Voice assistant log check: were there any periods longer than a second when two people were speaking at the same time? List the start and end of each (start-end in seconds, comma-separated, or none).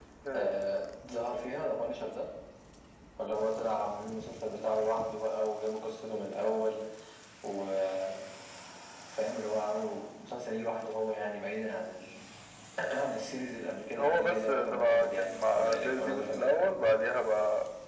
13.9-16.5